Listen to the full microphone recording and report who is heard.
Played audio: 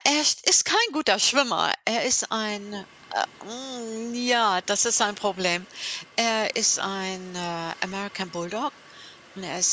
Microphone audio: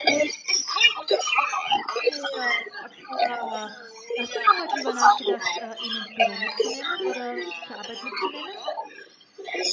both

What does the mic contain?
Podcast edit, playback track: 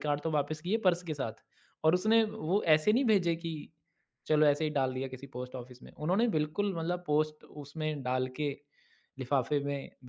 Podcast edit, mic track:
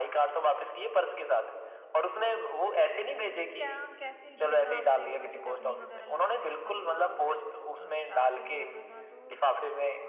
both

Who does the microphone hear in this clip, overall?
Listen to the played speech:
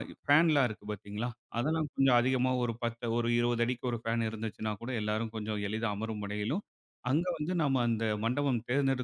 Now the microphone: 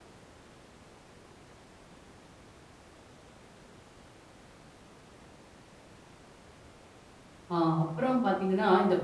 user only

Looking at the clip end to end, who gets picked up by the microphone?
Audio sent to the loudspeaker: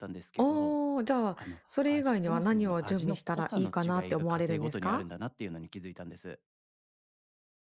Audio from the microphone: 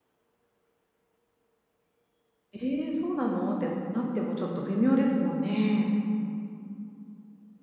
user only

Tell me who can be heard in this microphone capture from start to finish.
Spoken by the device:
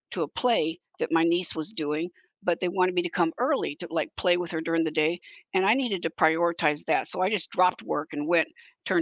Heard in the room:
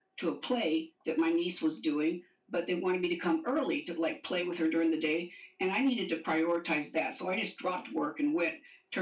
echo only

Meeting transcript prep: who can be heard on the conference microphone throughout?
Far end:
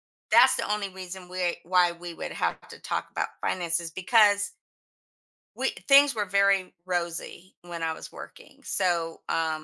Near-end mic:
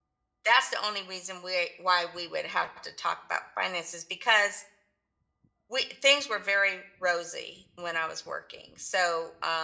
echo only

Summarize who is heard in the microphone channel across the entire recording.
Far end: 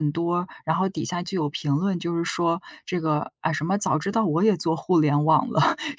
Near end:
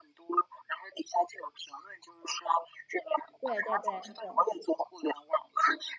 both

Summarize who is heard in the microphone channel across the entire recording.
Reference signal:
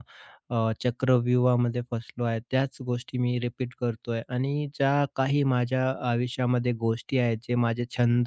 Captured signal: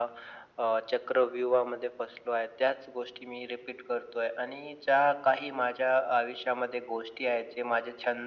echo only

